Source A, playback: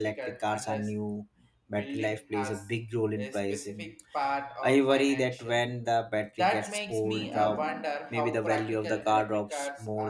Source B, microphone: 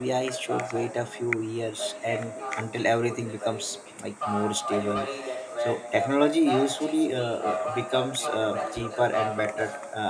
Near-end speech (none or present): present